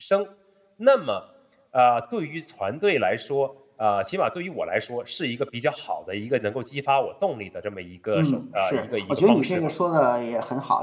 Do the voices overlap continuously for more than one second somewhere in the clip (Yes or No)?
Yes